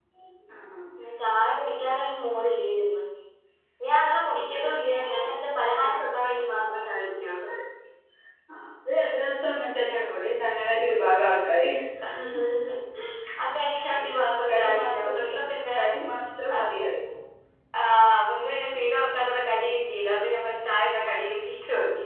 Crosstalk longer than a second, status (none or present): present